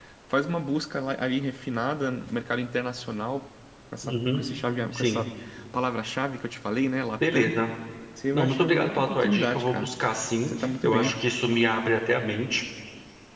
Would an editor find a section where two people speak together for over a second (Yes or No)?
Yes